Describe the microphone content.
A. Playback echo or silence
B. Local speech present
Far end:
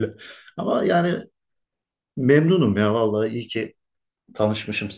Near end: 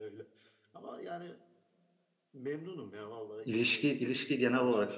B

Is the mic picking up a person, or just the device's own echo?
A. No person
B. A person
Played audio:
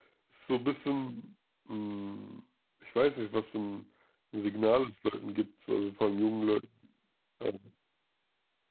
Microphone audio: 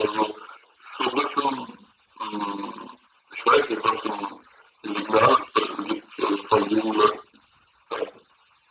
A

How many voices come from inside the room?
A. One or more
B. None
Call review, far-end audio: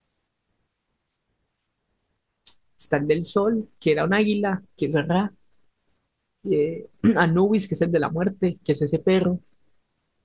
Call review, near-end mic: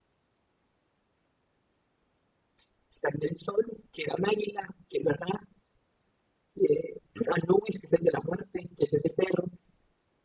B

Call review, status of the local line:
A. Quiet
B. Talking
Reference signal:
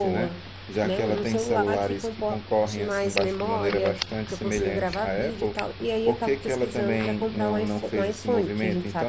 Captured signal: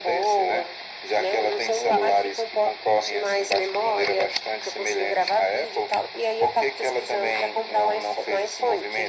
A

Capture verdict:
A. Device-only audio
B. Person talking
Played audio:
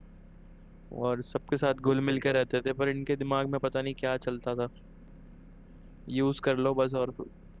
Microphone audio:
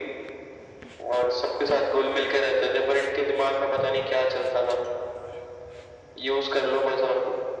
A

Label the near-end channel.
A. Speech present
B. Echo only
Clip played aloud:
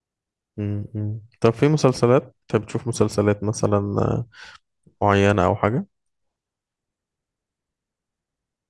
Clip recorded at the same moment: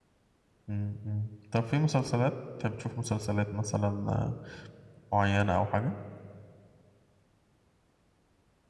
B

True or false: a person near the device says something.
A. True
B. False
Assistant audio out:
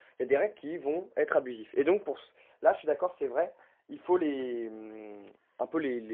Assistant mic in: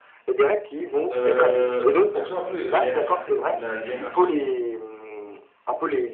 A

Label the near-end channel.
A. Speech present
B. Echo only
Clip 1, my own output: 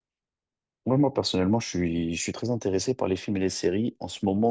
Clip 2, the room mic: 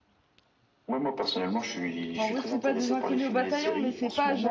A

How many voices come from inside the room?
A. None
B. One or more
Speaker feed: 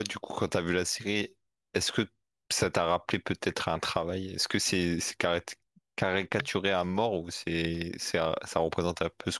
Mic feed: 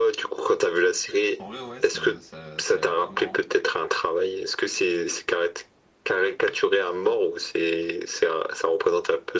B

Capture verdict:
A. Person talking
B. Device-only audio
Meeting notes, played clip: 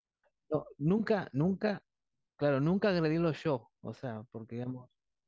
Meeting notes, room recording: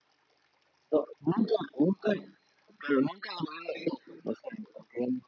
B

